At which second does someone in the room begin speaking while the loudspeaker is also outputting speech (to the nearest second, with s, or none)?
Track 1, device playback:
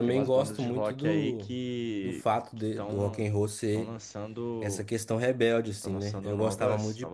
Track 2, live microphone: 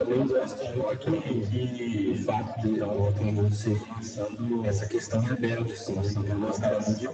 none